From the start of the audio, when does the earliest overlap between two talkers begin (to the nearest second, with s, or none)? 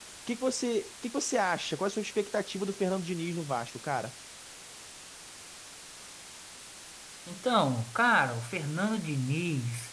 none